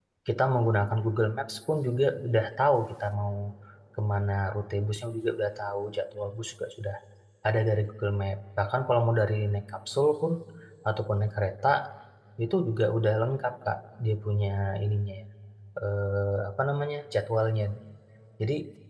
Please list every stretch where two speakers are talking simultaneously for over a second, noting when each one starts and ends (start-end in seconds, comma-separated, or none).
none